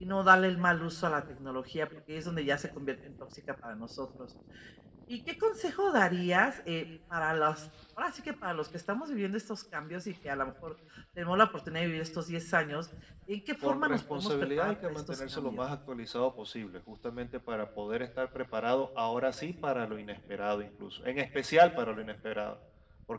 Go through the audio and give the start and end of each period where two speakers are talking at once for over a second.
13.6-15.6

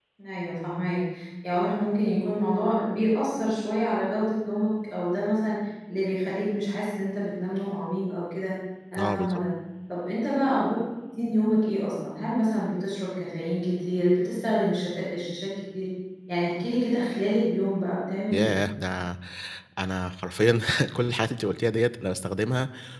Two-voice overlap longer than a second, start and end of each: none

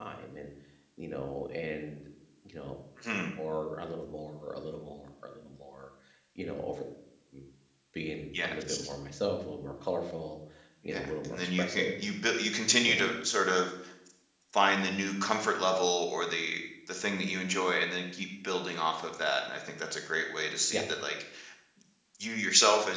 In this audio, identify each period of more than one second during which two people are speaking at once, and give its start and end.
10.8-12.1

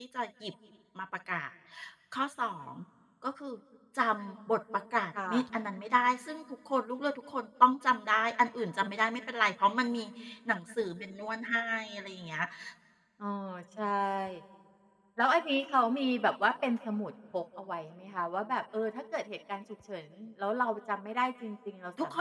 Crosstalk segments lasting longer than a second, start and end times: none

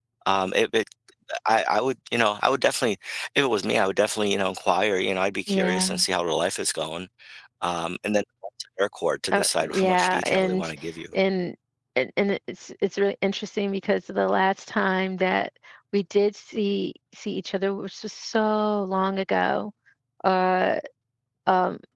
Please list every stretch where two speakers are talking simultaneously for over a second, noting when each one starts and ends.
9.3-10.7

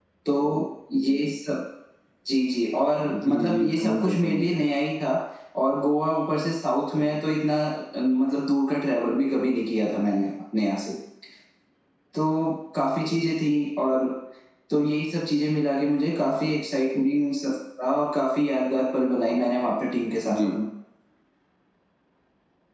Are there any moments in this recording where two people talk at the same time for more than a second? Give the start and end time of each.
3.1-4.6

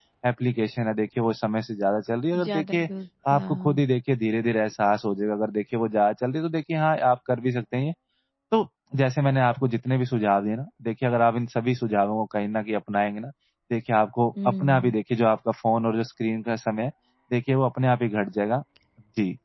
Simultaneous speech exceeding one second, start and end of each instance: none

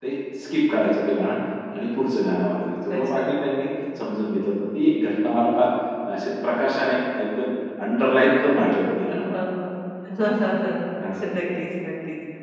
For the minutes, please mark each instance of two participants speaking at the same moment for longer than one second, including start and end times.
none

